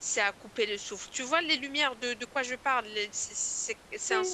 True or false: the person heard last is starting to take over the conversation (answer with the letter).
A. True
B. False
A